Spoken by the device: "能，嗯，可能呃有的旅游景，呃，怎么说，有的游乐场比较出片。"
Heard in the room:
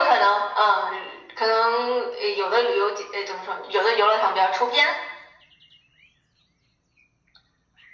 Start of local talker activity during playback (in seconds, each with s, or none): none